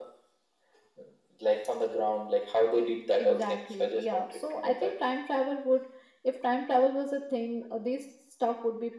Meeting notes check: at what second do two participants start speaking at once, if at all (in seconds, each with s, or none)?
3.2 s